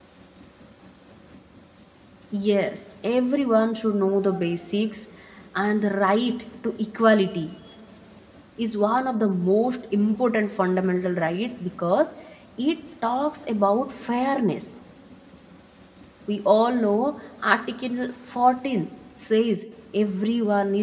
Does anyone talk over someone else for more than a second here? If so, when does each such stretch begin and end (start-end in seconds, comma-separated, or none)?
none